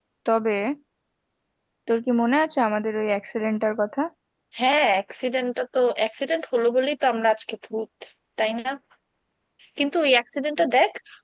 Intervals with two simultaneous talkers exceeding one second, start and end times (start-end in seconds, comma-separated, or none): none